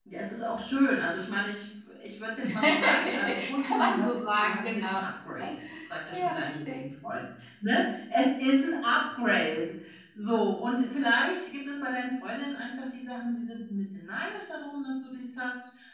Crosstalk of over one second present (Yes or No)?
Yes